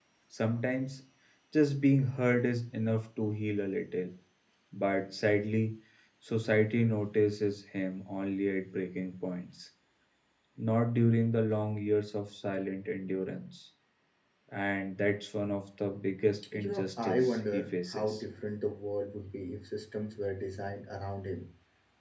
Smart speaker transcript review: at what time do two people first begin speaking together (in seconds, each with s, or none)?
16.5 s